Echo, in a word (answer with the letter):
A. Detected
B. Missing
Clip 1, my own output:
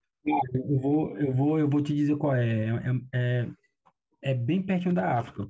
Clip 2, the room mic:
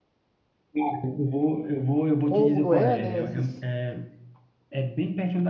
A